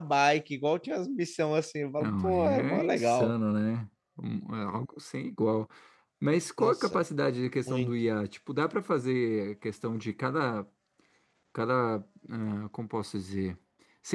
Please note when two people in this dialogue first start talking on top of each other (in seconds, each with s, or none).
2.0 s